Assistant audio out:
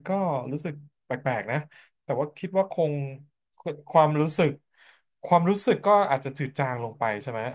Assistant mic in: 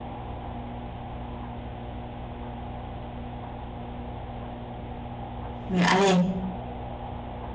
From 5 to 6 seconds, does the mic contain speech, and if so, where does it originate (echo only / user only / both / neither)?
user only